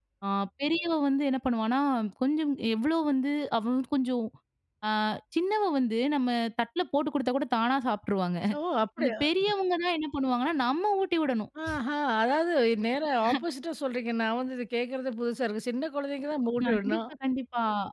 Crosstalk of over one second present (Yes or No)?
No